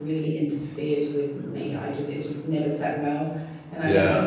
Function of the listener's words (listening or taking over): listening